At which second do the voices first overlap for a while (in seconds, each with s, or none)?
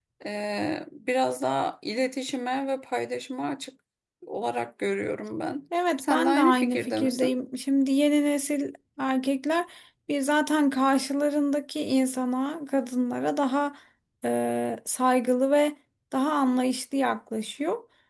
6.0 s